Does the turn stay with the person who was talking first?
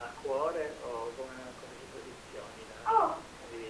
No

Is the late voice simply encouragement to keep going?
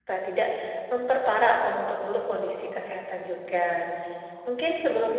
Yes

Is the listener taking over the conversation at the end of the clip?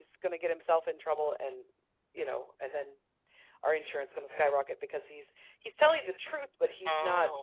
No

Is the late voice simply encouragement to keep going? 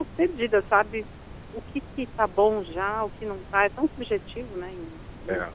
No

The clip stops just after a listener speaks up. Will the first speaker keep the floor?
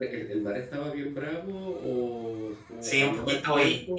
No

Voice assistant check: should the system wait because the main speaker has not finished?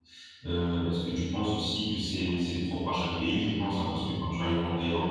Yes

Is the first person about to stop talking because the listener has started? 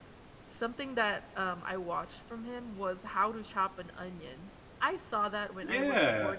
Yes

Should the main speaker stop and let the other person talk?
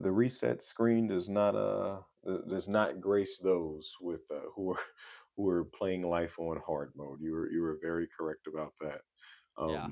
No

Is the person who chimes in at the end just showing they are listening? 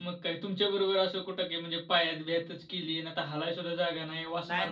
No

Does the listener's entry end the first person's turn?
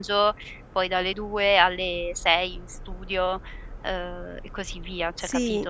Yes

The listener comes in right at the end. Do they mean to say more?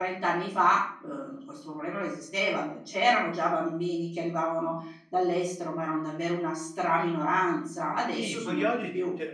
Yes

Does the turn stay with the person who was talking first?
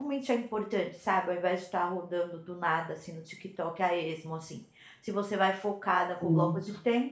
Yes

